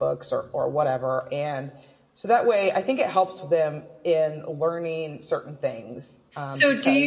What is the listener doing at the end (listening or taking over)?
taking over